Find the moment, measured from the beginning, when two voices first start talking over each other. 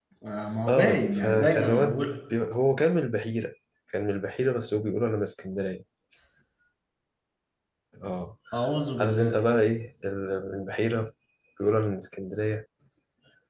0.7 s

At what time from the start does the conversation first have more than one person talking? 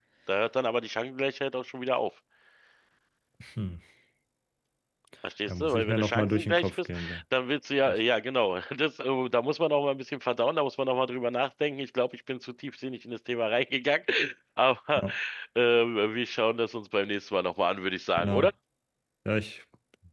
5.5 s

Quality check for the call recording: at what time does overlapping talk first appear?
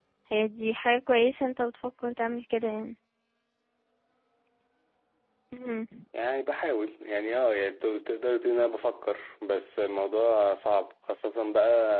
none

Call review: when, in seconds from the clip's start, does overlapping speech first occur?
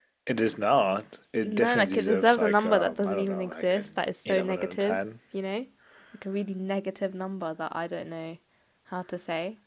1.4 s

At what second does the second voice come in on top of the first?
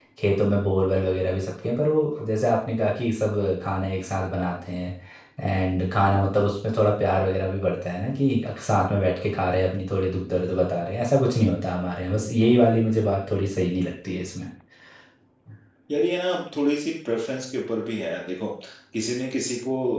none

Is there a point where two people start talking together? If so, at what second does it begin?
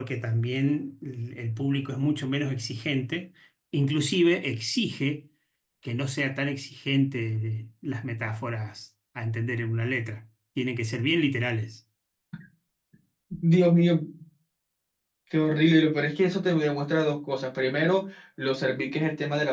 none

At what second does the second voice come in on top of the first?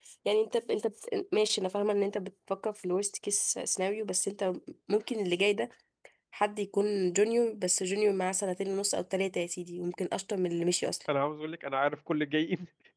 none

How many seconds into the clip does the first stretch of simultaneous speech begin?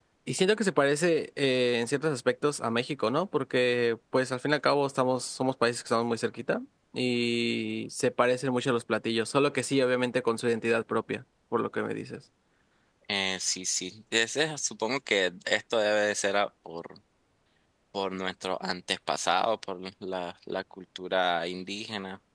none

